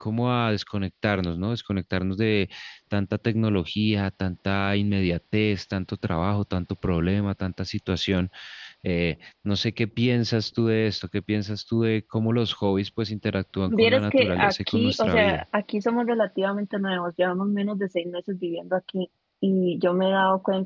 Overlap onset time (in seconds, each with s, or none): 13.7 s